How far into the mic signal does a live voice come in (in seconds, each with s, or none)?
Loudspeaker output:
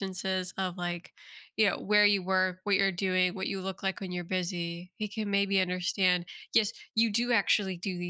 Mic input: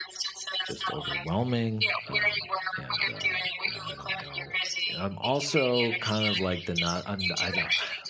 0.6 s